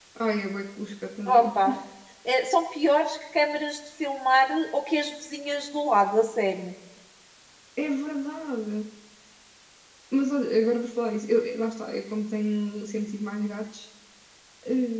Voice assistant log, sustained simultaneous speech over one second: none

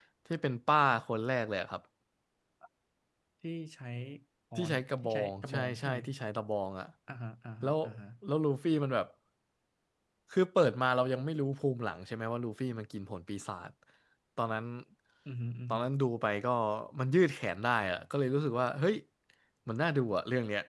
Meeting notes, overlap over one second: present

